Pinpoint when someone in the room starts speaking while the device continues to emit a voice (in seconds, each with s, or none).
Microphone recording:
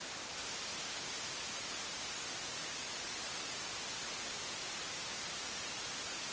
none